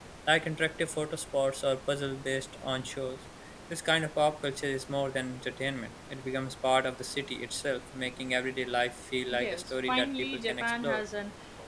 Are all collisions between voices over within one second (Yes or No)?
No